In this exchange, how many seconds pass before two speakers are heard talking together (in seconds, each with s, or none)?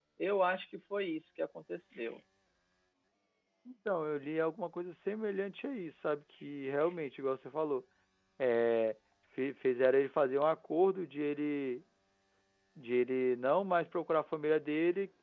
none